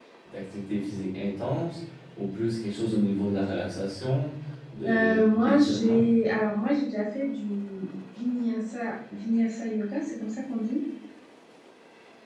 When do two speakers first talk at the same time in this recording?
4.8 s

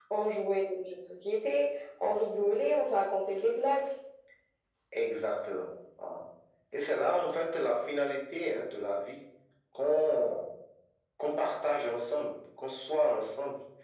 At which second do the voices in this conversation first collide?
none

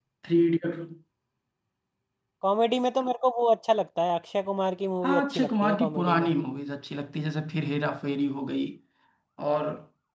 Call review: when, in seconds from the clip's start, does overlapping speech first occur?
5.0 s

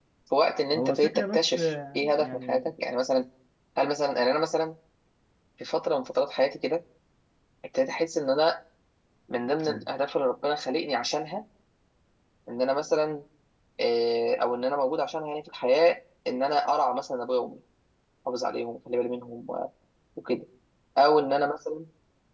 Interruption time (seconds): 0.8 s

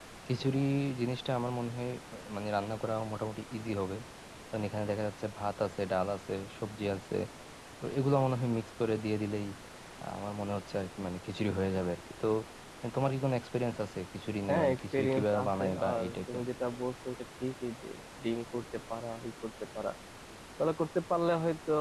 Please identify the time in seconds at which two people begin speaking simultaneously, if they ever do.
14.5 s

